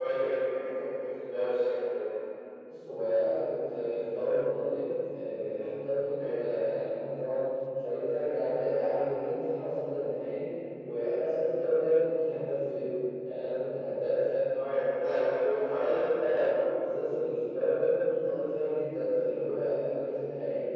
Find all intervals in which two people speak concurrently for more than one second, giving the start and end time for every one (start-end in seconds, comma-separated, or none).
none